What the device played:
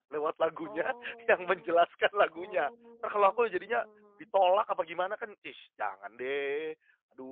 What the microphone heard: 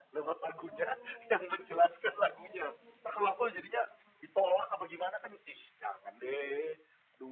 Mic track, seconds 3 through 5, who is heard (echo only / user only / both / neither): echo only